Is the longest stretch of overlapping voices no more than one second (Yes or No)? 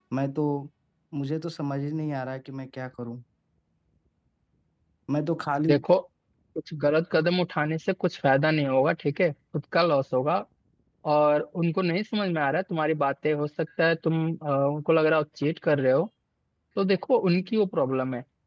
Yes